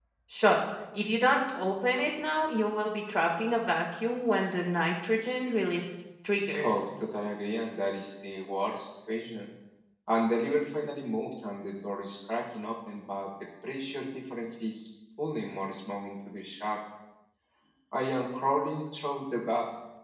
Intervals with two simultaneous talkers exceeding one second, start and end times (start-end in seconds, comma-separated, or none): none